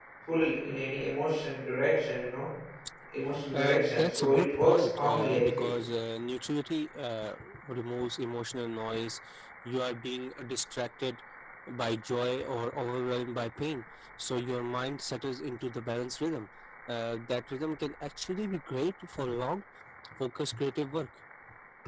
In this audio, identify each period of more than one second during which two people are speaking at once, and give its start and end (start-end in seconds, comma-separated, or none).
3.5-5.7